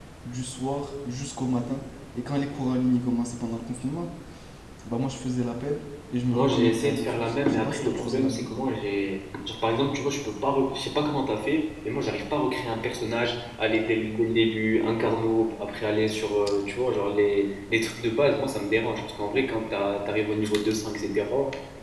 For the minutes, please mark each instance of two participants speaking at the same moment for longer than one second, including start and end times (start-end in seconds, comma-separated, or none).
6.3-8.5